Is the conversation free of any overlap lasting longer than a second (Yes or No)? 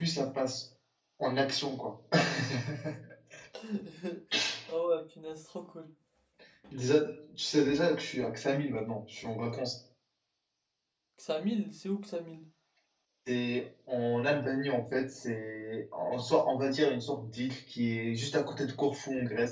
Yes